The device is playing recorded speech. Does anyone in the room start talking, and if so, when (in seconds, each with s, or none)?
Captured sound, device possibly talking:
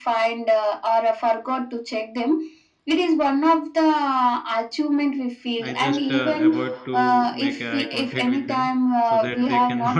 5.6 s